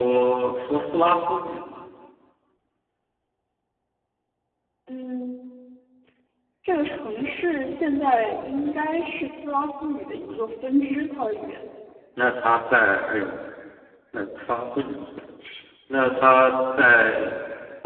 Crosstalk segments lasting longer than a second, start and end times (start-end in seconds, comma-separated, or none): none